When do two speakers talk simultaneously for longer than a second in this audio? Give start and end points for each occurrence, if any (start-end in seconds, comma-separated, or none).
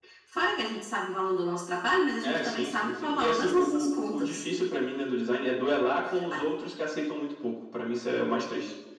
2.2-4.4